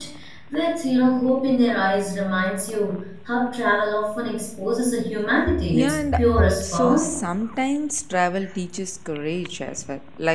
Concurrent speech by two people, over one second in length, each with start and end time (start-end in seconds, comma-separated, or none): 5.7-7.1